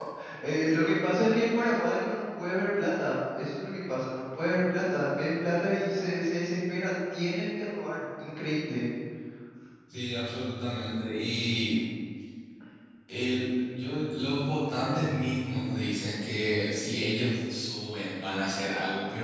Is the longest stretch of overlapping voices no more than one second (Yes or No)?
Yes